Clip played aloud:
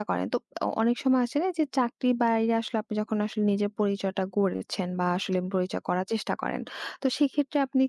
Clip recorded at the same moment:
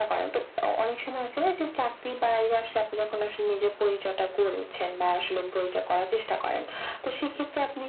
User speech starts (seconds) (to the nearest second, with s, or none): none